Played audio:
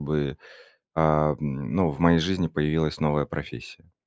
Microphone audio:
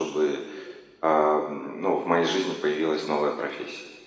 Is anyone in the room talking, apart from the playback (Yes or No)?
No